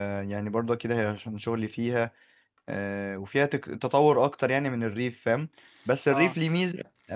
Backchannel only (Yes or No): Yes